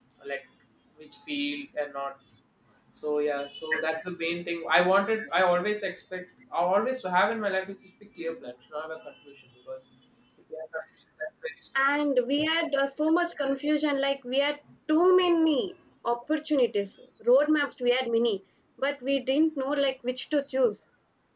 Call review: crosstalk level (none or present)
none